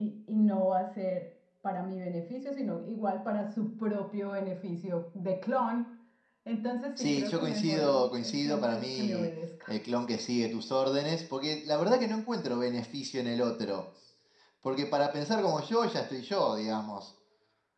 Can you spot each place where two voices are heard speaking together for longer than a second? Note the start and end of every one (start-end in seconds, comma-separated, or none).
7.0-9.3